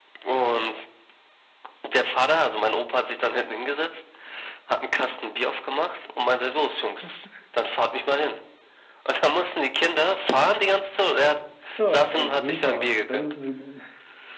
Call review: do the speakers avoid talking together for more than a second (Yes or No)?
No